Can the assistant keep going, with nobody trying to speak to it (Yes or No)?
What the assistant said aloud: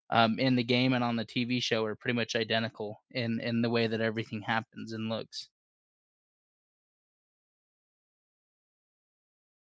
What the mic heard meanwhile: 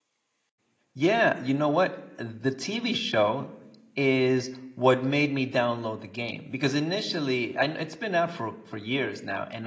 No